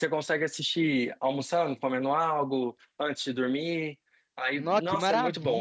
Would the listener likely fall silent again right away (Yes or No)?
No